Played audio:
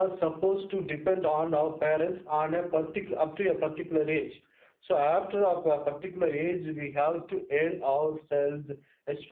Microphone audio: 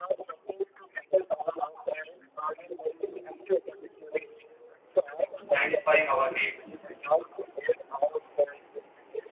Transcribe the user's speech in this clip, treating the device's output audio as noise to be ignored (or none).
satisfying our needs.